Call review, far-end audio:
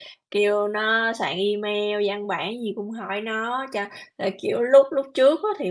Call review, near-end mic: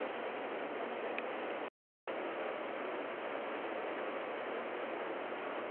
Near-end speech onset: none

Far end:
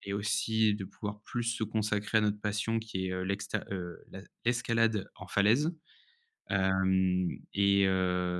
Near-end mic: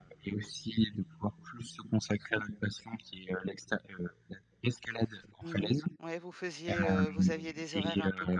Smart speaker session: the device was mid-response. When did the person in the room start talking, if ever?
5.4 s

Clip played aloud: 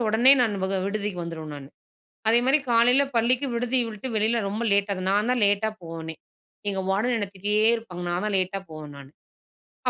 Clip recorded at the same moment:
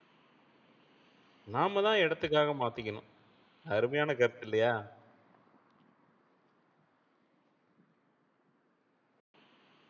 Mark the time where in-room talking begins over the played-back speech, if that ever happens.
1.6 s

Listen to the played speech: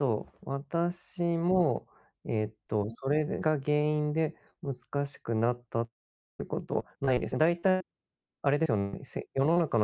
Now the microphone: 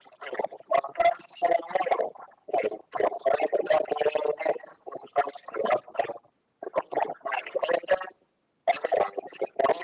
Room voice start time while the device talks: none

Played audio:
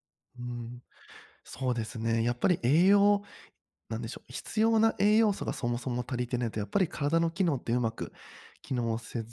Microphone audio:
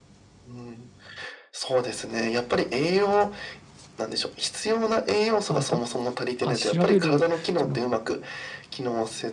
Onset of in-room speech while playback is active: 5.5 s

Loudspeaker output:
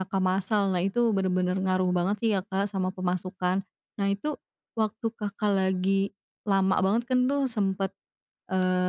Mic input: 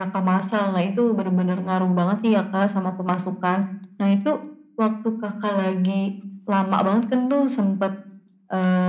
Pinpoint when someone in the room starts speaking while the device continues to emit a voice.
none

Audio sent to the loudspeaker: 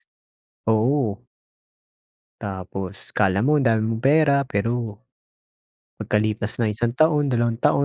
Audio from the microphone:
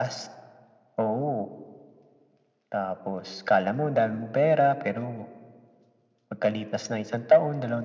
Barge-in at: none

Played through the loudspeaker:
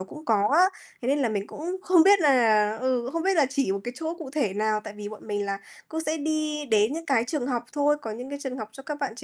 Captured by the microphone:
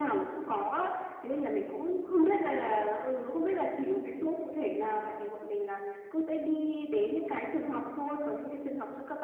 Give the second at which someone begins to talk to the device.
none

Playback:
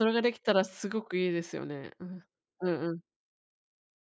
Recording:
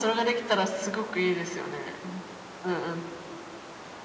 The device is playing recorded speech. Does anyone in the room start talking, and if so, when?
none

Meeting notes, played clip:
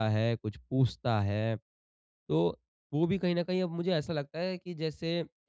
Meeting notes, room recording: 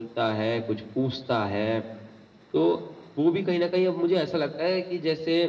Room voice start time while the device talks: none

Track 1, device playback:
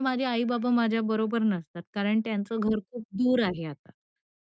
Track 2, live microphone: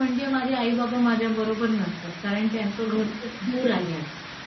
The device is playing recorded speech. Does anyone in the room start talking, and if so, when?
none

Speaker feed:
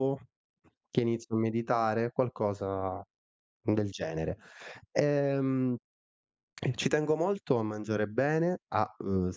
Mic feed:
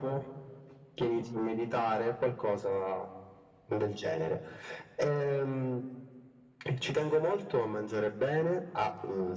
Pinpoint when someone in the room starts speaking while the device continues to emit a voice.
none

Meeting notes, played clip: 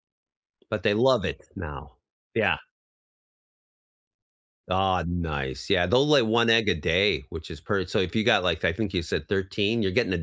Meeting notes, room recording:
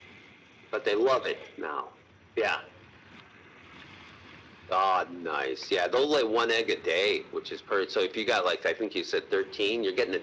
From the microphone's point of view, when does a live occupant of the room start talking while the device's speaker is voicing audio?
none

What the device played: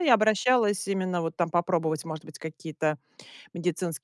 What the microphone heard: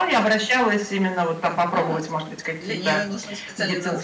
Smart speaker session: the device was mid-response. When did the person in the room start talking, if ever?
1.4 s

